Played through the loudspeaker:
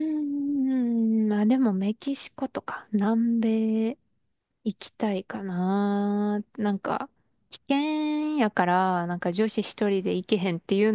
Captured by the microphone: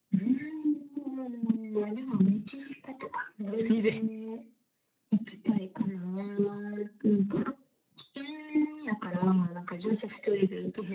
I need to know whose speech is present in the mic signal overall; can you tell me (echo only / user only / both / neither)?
both